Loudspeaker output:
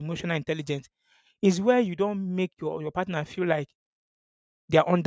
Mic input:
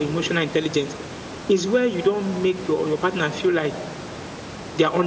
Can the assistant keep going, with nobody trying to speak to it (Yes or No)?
Yes